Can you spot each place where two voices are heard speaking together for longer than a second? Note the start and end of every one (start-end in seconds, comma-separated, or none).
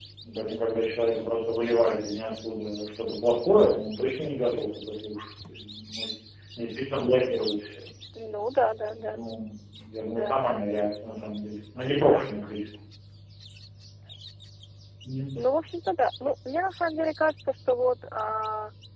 none